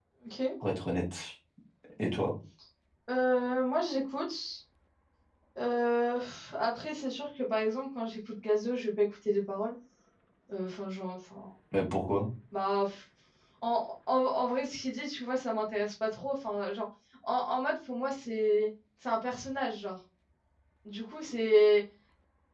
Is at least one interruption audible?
No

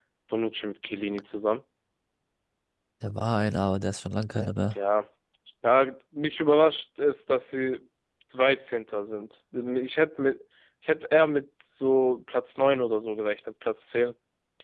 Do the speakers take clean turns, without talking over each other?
Yes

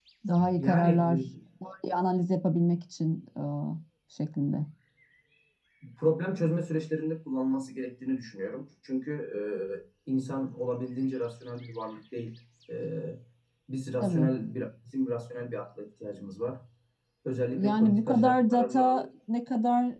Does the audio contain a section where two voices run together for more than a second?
Yes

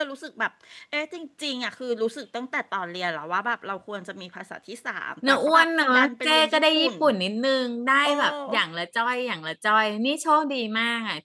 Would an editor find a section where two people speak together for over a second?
Yes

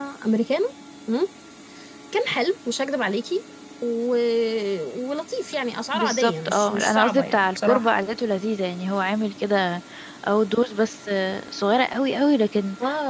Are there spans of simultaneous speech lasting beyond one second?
Yes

